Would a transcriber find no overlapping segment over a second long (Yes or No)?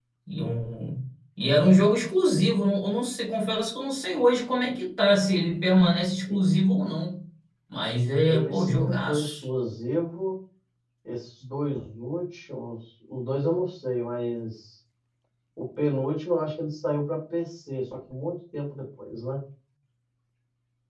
No